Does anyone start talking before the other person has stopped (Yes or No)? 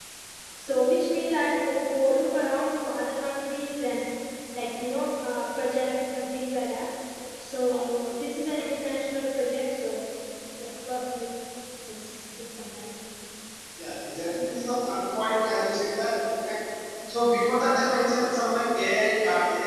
No